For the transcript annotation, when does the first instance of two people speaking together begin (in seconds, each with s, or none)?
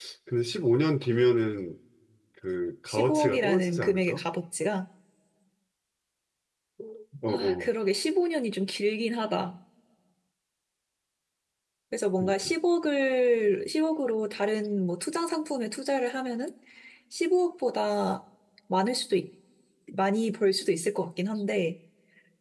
2.9 s